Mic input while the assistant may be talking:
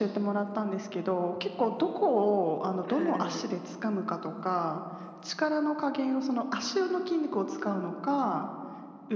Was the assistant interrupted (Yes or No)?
Yes